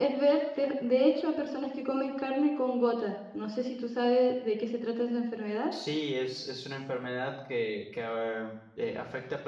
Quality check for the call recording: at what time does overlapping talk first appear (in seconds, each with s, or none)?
none